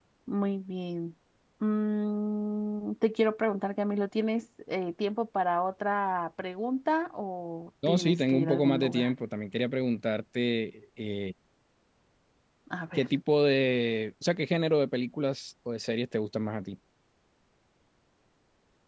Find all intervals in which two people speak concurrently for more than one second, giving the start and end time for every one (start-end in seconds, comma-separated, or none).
7.9-9.1